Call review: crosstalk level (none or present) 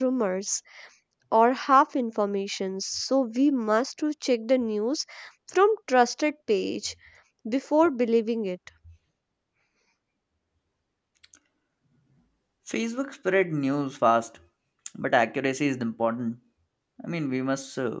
none